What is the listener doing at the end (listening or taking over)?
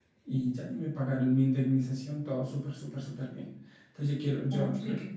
listening